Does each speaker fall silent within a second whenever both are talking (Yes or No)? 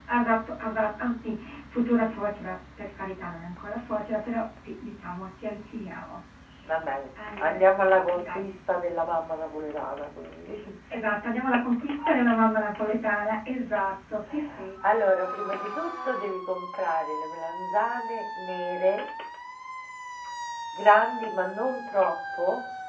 Yes